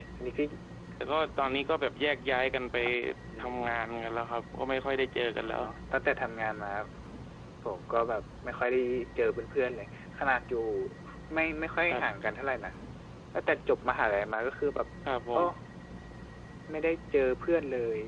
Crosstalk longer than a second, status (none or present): none